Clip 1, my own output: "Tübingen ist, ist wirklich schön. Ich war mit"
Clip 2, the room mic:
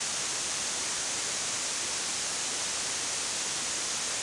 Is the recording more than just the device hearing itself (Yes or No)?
No